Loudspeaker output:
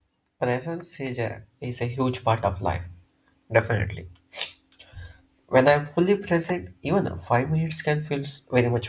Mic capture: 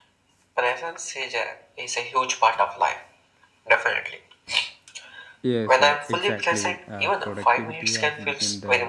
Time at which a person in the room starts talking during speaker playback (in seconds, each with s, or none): 5.5 s